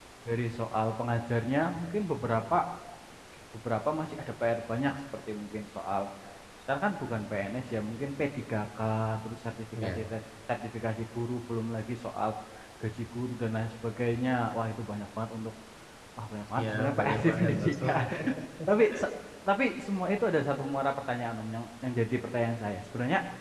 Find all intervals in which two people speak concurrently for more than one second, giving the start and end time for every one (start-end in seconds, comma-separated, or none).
16.6-18.0